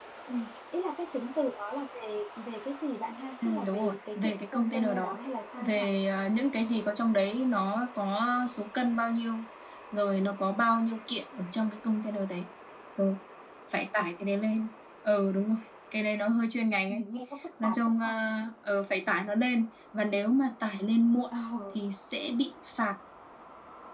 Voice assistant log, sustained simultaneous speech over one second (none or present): present